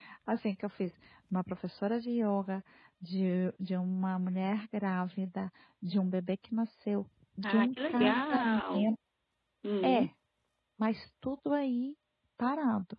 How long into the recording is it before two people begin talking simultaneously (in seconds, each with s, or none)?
7.4 s